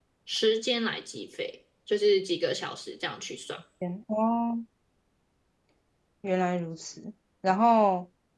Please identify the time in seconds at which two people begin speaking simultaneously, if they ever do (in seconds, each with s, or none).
none